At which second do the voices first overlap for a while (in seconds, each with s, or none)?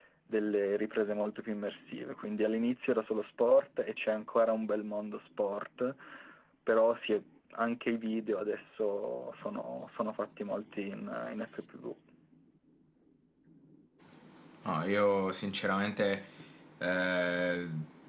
none